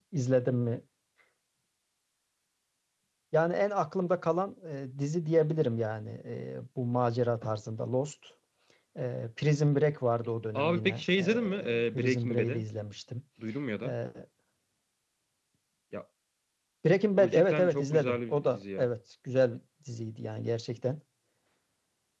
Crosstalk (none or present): present